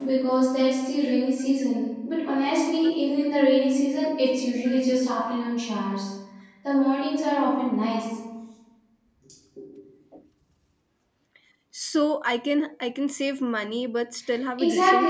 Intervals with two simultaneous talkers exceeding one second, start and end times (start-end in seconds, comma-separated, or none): none